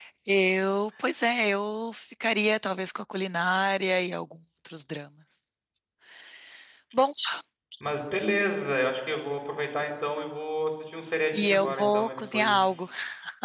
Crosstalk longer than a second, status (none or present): present